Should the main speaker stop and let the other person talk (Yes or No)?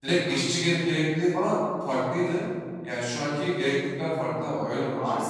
No